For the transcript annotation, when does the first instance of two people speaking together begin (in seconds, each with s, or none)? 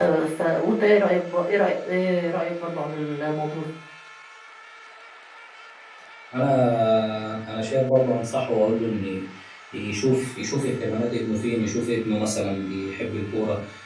none